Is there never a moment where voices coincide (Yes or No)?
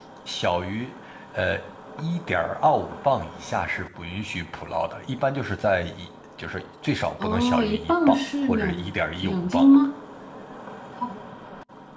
No